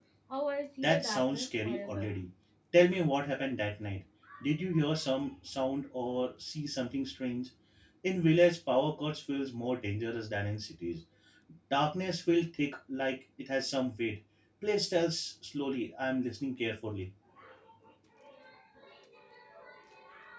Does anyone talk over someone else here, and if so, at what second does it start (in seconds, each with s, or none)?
0.8 s